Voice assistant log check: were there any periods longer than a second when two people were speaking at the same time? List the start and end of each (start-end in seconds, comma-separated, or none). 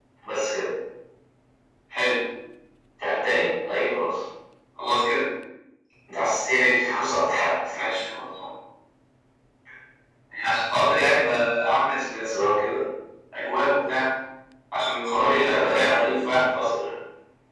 15.2-16.7